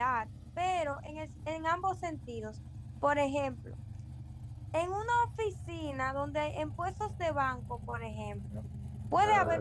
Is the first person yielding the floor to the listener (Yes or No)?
No